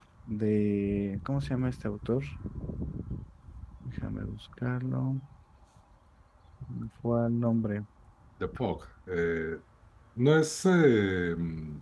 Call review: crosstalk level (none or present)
none